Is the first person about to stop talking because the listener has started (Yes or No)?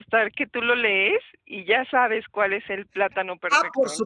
Yes